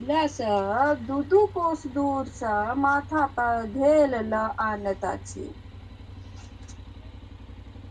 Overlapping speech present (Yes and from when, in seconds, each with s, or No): No